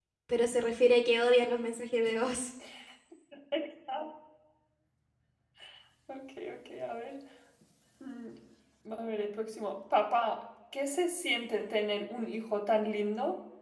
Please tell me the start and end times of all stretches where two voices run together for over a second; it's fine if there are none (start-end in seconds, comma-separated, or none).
none